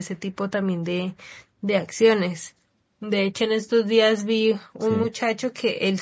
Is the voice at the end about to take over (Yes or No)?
No